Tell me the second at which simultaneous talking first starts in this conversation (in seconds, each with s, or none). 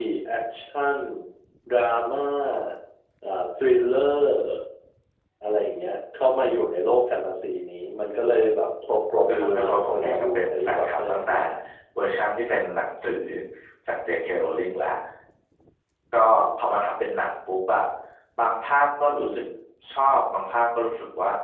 9.3 s